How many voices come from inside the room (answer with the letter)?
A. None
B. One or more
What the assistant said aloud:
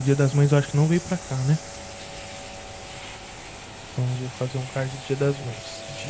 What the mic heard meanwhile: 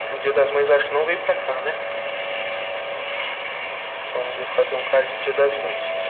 A